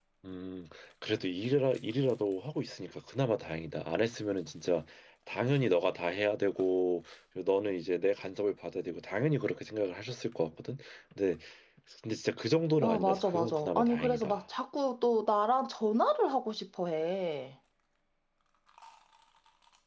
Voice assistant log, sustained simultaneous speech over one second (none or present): present